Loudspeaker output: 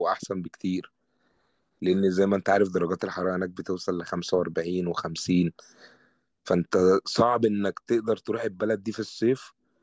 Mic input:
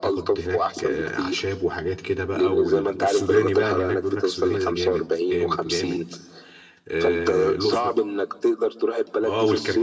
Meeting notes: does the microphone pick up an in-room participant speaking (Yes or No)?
Yes